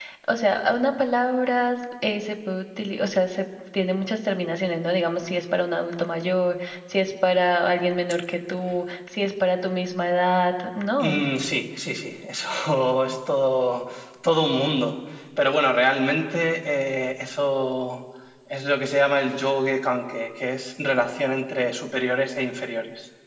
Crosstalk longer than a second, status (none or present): none